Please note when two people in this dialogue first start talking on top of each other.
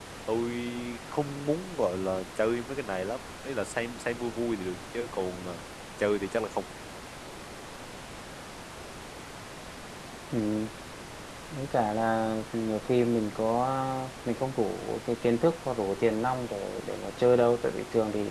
none

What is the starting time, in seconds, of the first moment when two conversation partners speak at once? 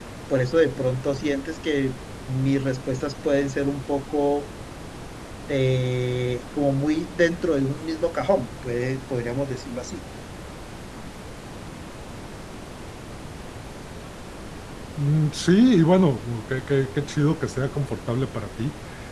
none

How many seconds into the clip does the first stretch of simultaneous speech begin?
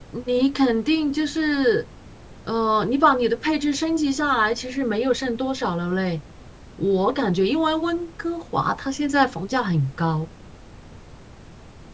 none

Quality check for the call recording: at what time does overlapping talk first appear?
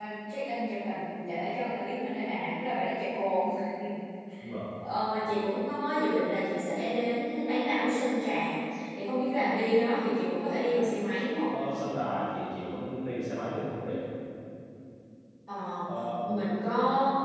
none

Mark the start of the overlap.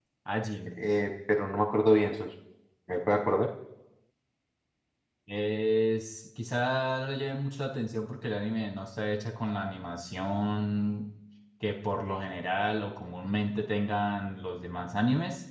none

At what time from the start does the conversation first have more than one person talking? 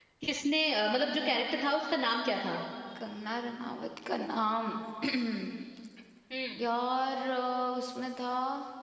none

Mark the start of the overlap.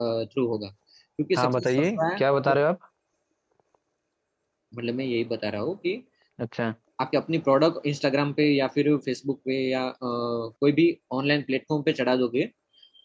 1.4 s

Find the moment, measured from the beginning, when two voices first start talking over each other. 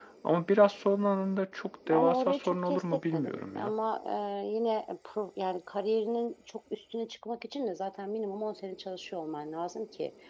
1.9 s

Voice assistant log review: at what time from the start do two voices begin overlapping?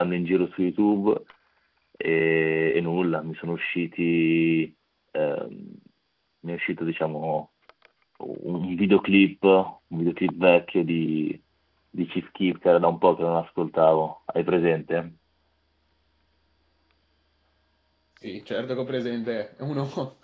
none

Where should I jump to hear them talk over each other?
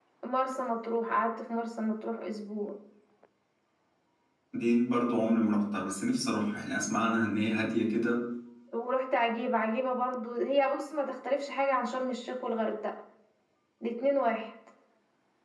none

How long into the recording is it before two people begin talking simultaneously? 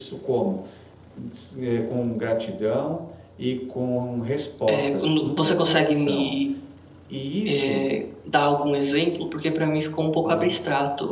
4.7 s

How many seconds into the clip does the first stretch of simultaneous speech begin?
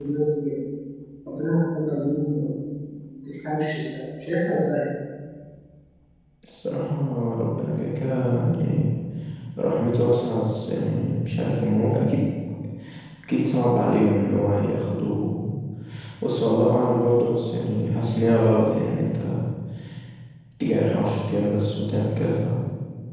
none

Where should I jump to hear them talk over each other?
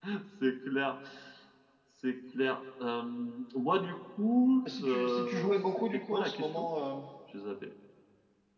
4.6 s

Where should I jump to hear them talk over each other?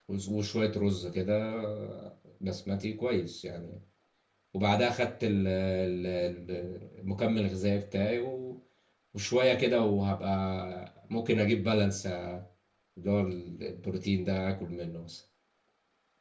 none

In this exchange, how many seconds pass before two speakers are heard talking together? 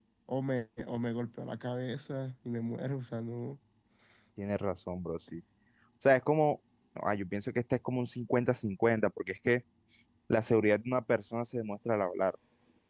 none

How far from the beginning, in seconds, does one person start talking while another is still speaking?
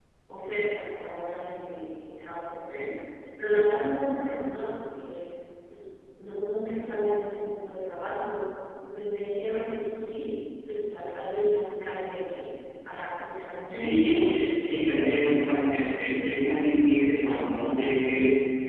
13.7 s

